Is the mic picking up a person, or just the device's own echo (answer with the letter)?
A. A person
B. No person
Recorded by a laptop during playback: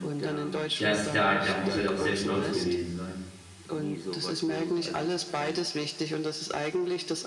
A